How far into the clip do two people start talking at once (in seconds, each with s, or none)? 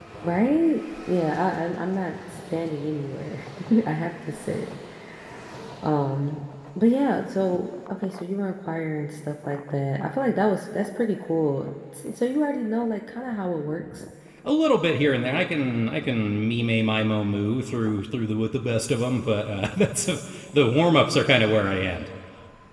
none